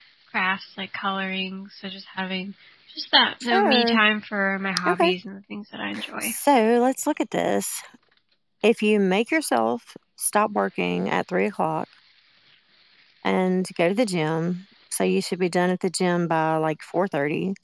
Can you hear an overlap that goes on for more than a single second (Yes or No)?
No